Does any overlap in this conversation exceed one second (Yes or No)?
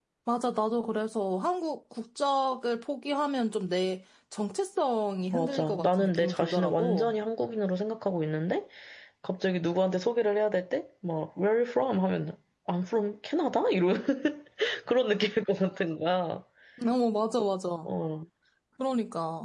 Yes